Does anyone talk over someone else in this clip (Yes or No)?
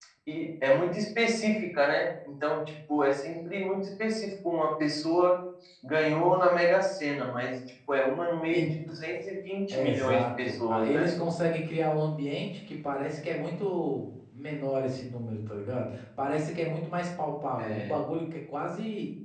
Yes